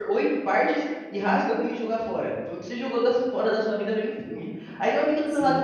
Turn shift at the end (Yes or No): No